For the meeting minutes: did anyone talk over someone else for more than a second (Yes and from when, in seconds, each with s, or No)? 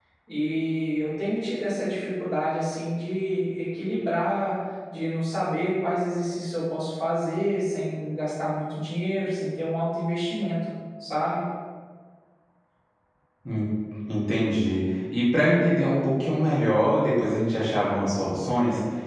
No